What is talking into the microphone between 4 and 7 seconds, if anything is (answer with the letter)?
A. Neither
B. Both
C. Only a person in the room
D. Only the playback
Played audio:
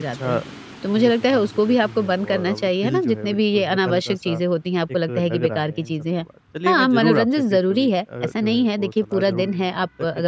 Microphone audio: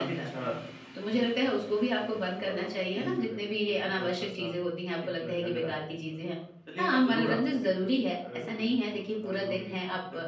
D